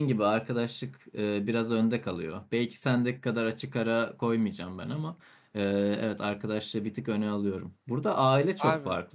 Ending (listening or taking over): listening